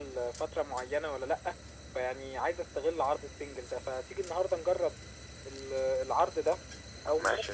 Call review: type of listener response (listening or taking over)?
listening